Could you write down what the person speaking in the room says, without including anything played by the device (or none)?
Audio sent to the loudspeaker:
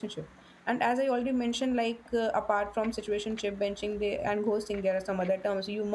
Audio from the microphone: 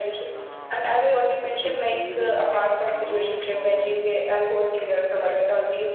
Uh, it's even, you know, uh,